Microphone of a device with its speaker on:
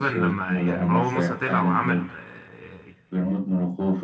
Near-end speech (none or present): present